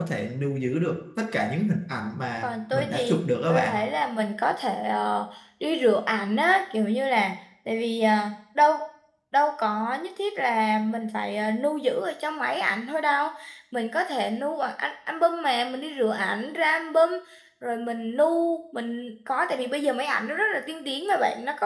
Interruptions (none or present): present